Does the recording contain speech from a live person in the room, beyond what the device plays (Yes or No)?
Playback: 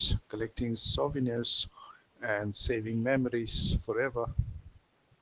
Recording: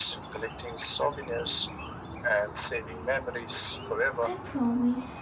Yes